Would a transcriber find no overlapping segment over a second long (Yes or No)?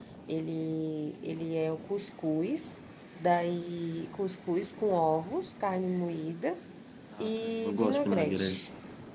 No